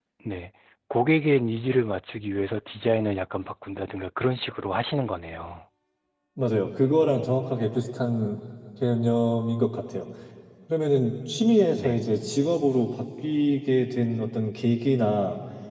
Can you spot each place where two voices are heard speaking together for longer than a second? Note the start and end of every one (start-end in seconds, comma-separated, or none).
none